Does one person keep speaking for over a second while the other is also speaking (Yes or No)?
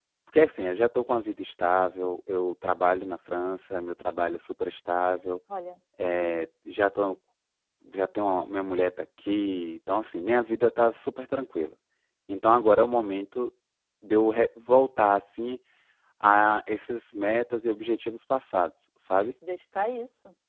No